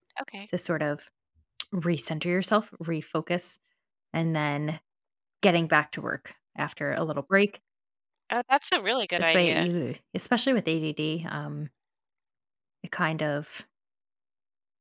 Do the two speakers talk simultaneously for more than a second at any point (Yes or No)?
No